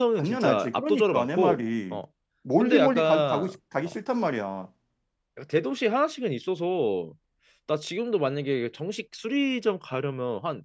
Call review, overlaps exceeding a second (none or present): present